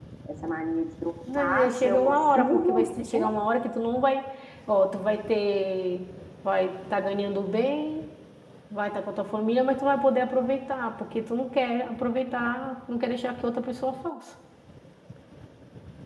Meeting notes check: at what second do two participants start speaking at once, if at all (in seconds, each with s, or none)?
1.3 s